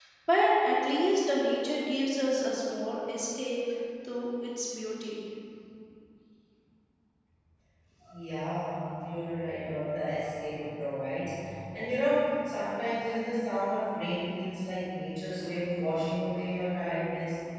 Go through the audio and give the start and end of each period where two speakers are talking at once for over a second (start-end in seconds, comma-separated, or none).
none